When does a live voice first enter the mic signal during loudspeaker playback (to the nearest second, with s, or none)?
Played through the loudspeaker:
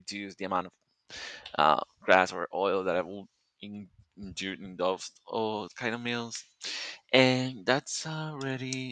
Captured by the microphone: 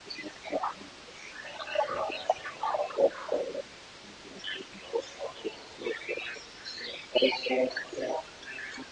none